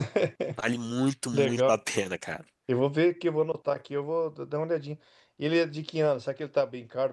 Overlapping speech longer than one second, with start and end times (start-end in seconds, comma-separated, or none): none